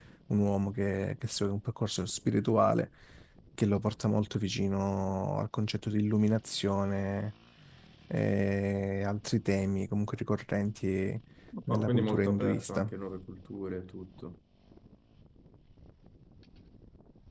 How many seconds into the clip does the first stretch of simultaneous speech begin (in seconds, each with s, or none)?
11.7 s